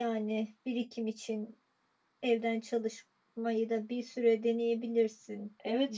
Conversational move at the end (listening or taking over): taking over